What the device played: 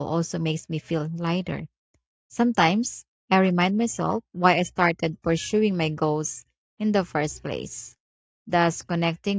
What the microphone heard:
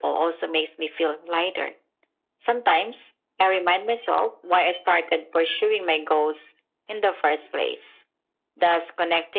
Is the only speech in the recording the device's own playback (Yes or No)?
Yes